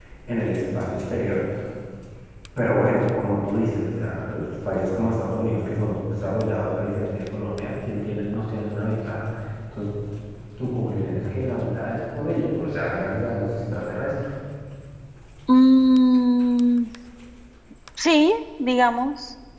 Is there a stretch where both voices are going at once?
No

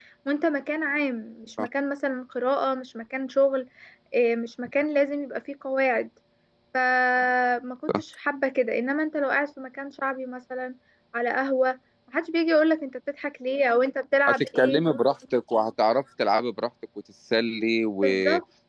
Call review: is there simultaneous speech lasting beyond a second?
No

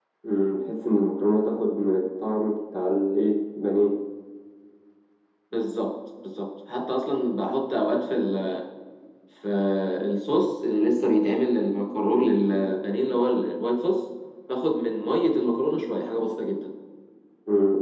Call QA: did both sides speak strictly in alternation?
Yes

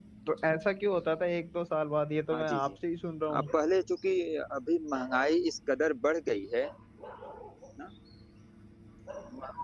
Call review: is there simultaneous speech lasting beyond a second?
No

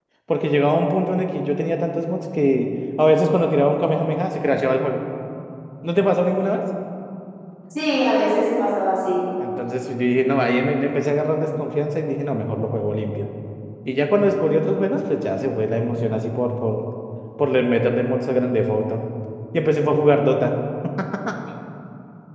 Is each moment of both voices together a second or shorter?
Yes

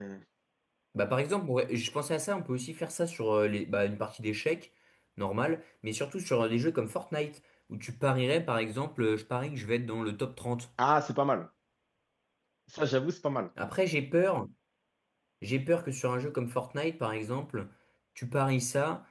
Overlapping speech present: No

